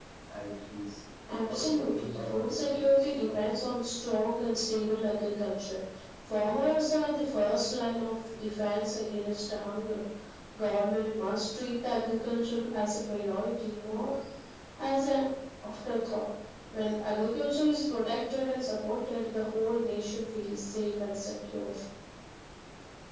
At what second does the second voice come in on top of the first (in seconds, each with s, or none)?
1.5 s